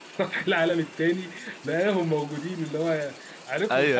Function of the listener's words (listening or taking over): taking over